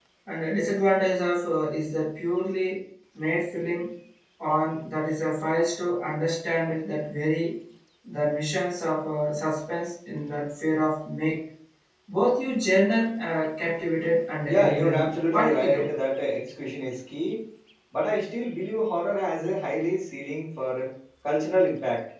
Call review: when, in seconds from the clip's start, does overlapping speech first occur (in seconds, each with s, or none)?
14.5 s